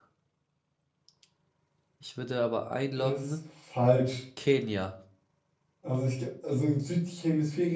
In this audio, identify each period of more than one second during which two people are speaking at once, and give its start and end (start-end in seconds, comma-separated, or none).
none